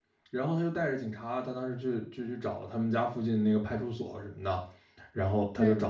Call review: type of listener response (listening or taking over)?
listening